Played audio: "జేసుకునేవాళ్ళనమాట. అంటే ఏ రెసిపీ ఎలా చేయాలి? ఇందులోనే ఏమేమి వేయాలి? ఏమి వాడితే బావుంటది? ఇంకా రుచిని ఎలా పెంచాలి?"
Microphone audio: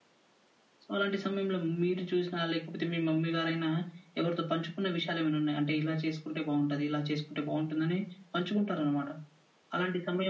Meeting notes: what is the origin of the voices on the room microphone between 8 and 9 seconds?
user only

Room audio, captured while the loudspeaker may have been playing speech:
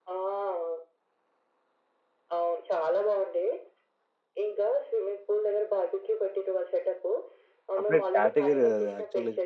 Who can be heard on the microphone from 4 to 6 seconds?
echo only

